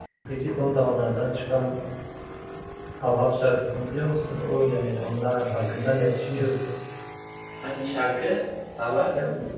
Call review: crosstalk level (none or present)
none